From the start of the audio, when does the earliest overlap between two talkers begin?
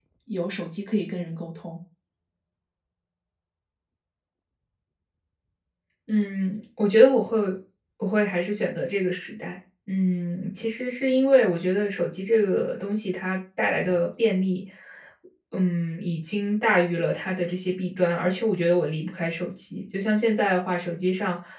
none

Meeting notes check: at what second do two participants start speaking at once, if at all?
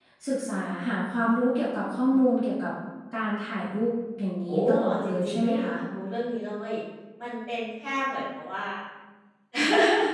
4 s

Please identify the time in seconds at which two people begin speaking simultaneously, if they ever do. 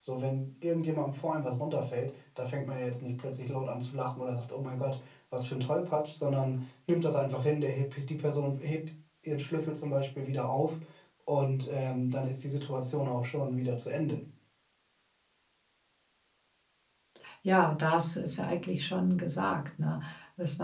none

